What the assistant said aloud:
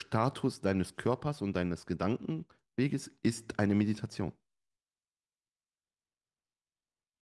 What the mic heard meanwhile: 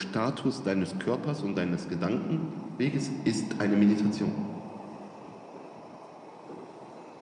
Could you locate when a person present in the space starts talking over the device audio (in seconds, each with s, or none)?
none